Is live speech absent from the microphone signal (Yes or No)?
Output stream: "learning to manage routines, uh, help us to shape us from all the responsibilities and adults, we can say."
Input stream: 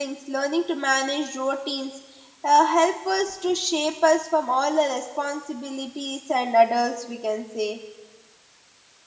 Yes